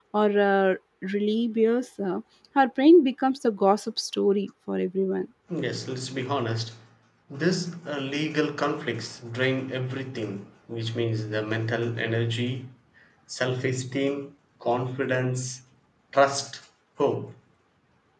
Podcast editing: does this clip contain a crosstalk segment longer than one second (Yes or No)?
No